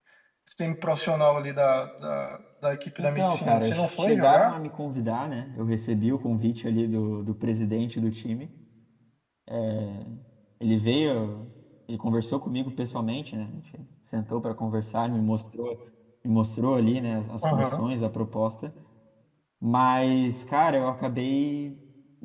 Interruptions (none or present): present